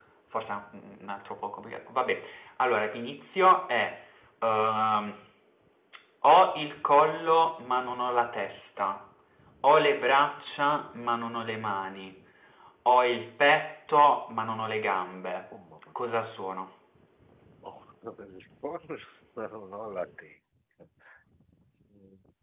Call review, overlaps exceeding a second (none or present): none